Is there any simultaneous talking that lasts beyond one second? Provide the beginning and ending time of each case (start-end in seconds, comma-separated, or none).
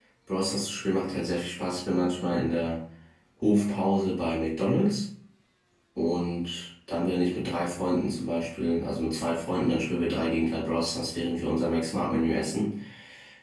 none